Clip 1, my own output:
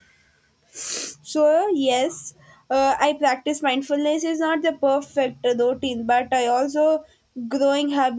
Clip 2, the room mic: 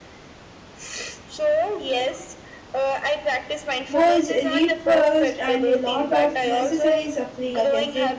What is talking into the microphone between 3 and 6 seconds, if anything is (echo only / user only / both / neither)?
both